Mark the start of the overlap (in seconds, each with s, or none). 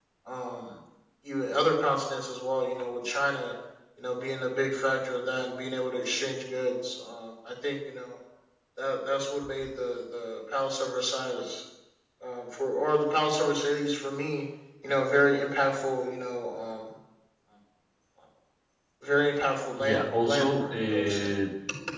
19.8 s